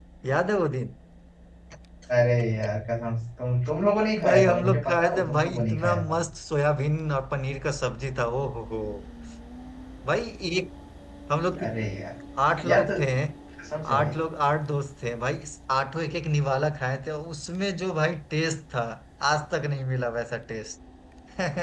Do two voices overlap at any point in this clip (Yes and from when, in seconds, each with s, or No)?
Yes, from 4.2 s